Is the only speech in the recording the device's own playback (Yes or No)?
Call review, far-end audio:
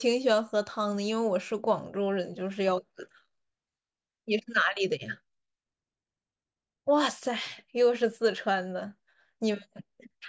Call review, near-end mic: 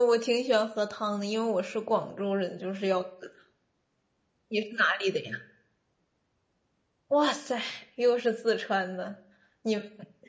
Yes